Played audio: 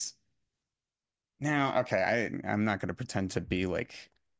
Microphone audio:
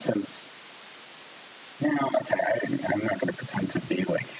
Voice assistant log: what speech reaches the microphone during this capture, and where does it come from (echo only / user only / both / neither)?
echo only